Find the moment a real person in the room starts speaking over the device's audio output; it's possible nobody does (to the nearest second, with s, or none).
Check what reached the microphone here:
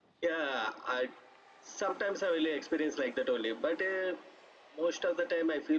none